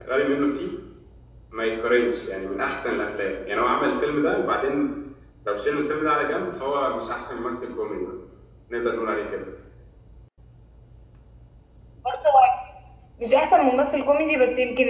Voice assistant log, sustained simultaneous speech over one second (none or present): none